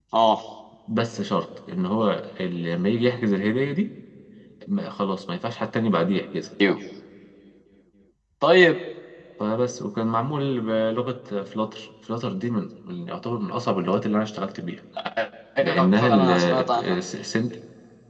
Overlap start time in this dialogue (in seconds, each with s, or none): 15.6 s